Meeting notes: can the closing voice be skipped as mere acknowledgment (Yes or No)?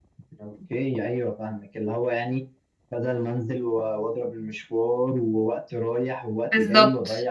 Yes